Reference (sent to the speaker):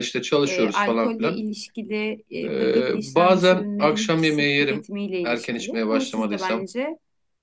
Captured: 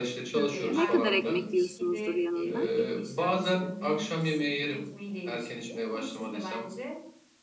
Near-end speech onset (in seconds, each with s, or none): 0.3 s